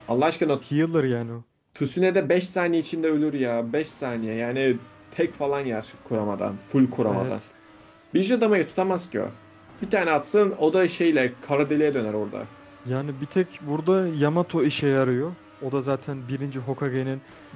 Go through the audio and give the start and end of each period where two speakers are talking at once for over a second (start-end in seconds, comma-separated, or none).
none